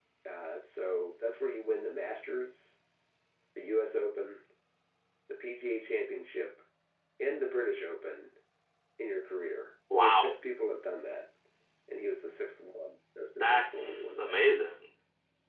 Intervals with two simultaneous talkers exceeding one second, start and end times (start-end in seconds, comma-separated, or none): 13.4-14.8